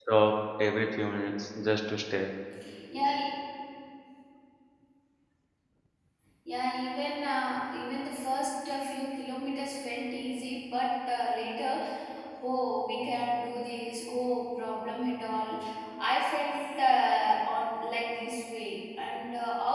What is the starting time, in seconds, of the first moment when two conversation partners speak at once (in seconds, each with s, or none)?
none